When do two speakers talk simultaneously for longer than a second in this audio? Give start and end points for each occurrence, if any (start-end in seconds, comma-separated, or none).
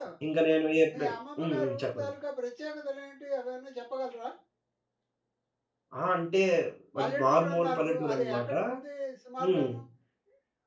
0.9-2.1, 7.0-8.5